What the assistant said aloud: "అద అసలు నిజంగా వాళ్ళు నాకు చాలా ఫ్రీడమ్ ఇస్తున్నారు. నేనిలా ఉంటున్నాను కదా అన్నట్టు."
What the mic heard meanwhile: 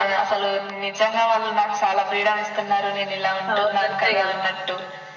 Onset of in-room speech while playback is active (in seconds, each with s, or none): 3.5 s